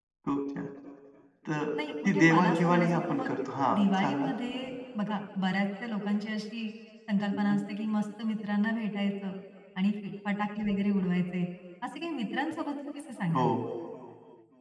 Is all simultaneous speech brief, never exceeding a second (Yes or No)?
No